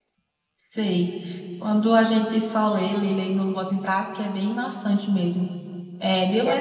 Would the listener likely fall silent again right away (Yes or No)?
Yes